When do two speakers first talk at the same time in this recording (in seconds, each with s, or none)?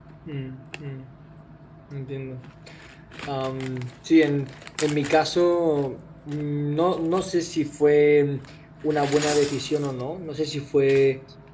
none